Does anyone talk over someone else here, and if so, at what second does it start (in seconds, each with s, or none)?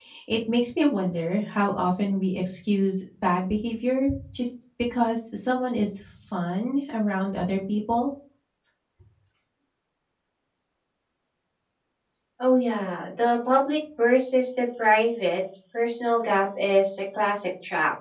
none